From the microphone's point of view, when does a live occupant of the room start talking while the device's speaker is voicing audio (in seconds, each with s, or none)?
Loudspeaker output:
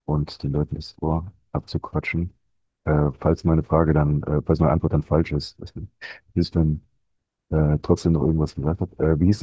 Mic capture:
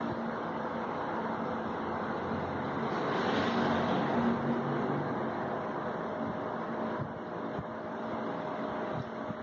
none